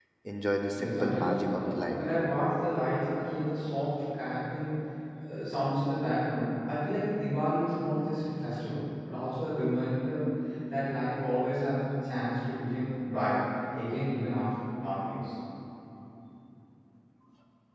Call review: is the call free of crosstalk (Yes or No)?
No